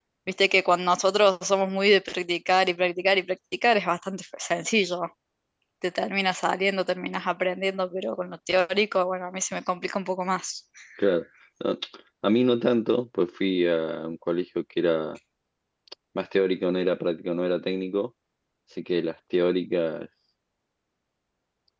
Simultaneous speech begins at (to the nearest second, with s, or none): none